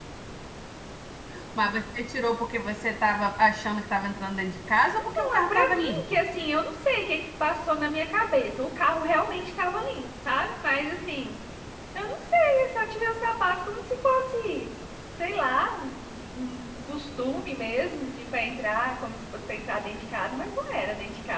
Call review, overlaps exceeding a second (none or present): present